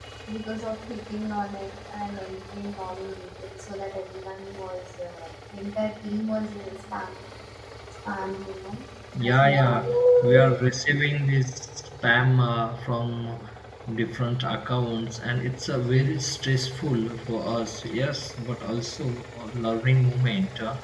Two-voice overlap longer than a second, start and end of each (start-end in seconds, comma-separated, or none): 9.3-10.6